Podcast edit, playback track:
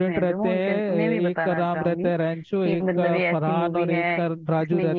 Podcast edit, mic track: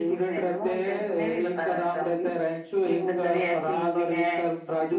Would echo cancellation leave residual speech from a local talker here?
No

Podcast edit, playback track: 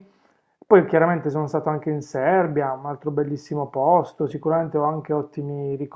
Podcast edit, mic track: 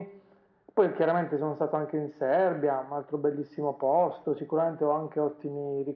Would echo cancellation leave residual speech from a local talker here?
No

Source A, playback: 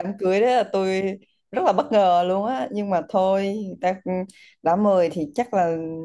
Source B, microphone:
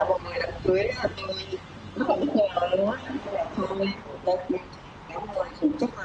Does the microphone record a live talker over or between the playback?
No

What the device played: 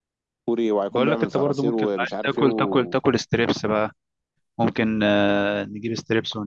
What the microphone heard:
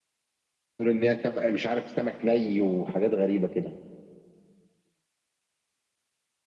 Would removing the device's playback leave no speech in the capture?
No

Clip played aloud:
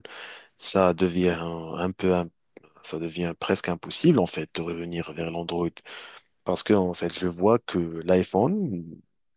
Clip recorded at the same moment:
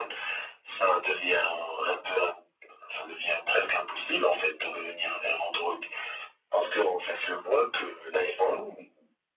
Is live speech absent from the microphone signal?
Yes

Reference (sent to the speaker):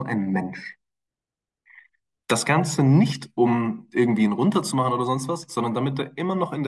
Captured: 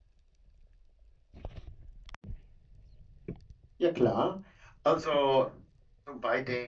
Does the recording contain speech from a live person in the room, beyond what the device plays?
Yes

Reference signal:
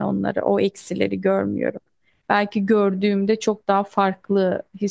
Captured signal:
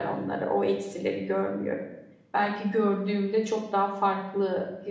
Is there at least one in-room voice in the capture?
No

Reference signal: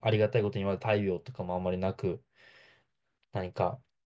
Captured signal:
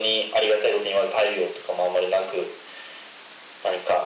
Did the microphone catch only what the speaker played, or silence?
Yes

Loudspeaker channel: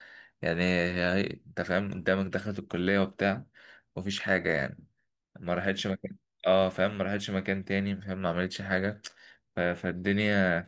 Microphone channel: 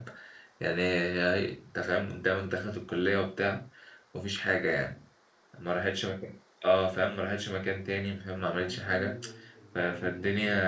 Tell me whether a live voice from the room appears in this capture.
Yes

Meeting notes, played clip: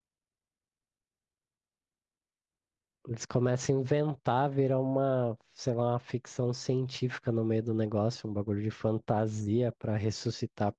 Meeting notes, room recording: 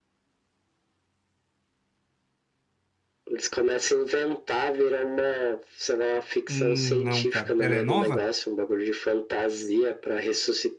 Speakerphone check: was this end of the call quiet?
No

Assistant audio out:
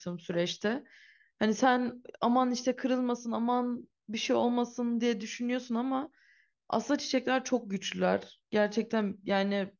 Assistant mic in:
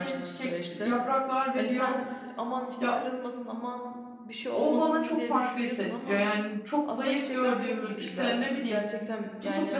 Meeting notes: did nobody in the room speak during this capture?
No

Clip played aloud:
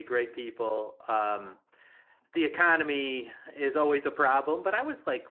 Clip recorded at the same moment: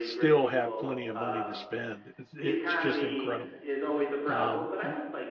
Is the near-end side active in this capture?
Yes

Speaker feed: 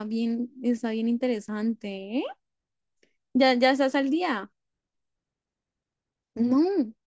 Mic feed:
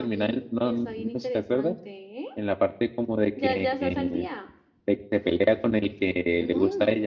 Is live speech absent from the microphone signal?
No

